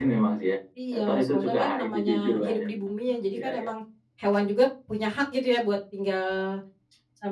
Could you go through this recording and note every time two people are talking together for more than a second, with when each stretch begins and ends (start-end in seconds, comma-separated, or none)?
0.9-2.7